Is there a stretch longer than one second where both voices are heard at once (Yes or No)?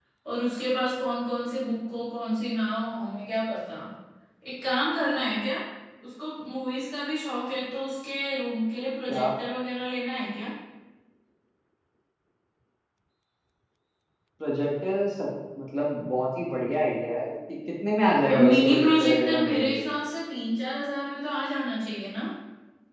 Yes